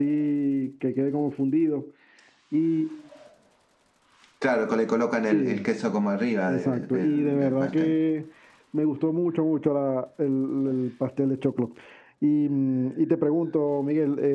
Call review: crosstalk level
present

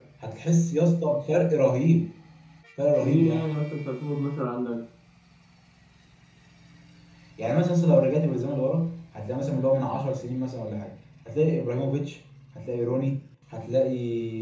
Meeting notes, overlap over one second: none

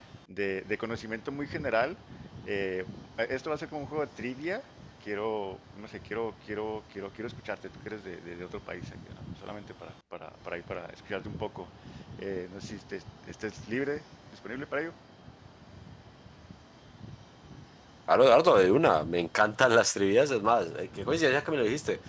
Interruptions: none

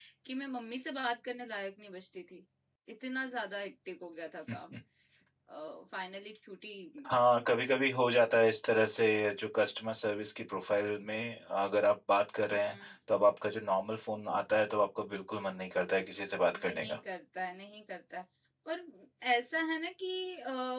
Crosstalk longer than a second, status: none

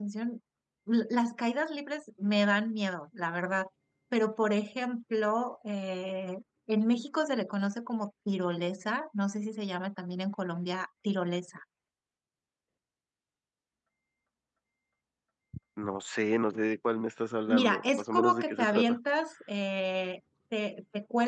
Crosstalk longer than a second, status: present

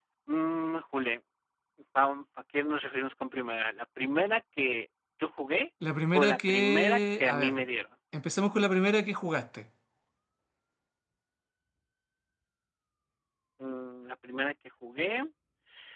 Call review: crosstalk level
present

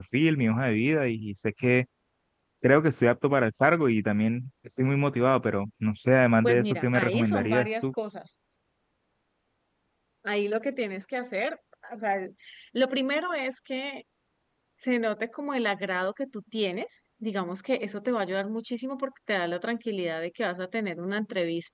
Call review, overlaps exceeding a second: present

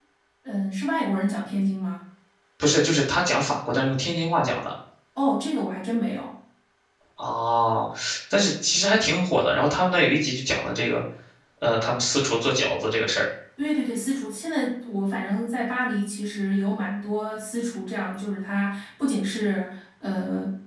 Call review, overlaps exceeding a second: none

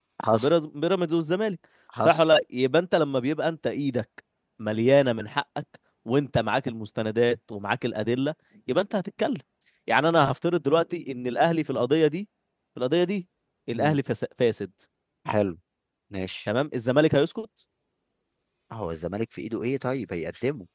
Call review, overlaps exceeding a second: none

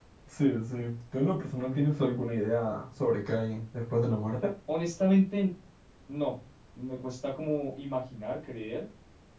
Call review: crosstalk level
none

